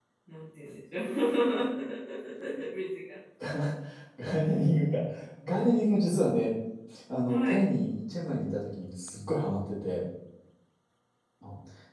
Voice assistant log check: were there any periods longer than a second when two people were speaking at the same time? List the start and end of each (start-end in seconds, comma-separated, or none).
none